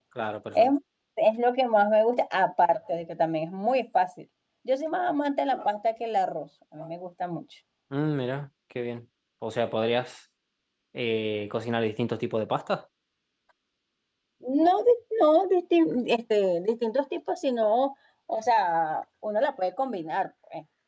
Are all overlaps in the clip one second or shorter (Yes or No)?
Yes